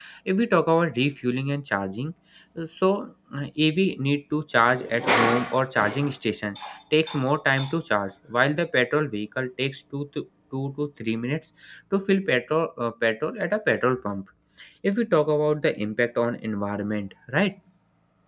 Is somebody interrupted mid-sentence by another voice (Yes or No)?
No